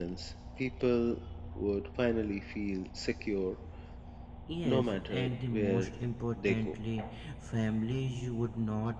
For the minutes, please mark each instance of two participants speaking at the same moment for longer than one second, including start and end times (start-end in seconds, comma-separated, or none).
4.6-5.9